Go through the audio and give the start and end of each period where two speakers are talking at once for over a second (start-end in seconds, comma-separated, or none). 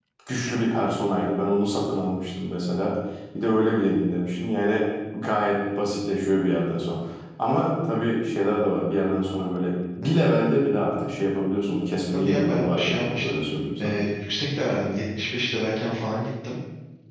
12.1-13.4